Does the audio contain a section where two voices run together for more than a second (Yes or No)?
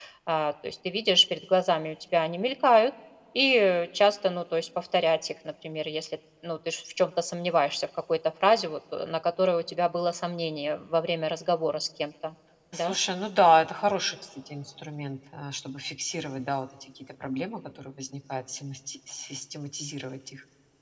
No